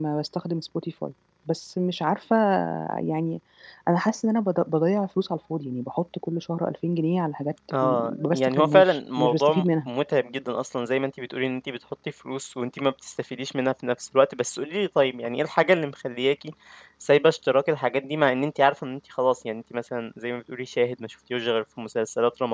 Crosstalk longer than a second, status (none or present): present